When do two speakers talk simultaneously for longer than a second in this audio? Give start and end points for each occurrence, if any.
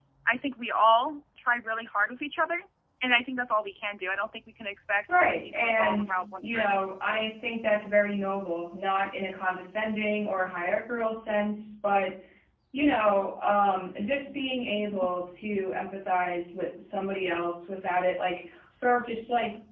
5.1-6.8

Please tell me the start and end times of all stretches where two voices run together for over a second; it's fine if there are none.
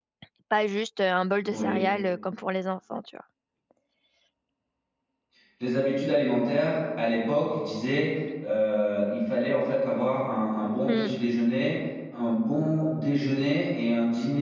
none

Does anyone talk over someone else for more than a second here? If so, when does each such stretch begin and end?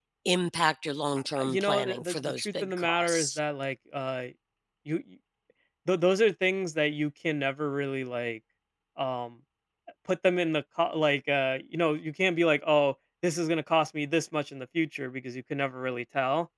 1.4-3.4

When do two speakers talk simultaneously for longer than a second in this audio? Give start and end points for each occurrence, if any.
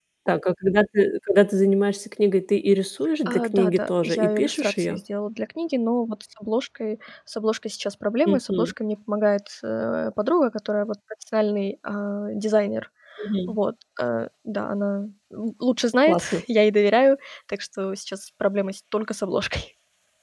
3.3-5.0

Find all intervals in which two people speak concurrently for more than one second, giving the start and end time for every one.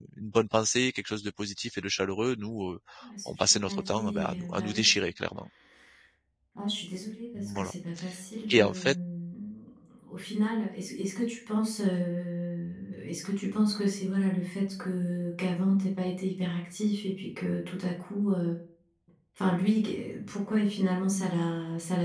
3.3-5.0

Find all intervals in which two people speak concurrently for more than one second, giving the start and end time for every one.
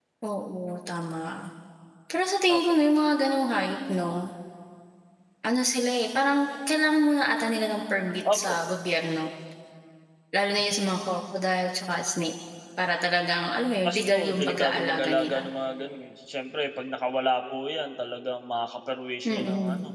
13.8-15.4

